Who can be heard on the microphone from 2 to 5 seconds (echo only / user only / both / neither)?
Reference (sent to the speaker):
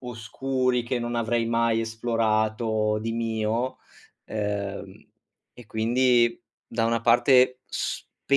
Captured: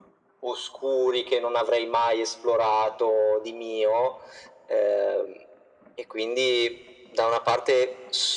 echo only